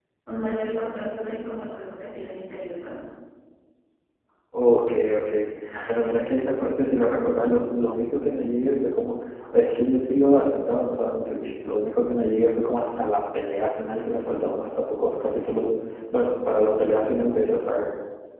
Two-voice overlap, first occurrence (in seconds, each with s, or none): none